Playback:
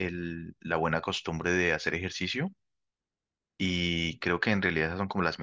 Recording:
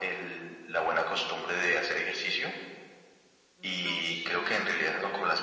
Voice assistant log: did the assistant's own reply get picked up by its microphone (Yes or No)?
Yes